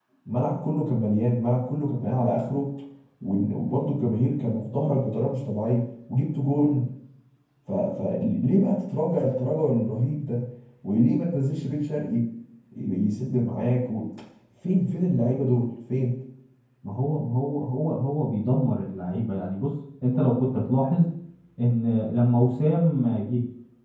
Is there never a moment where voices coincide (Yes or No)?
Yes